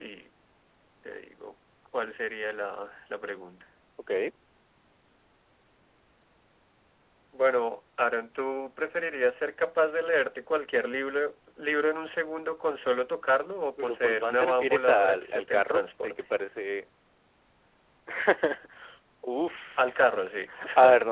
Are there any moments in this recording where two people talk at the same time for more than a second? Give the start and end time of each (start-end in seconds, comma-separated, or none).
13.8-16.2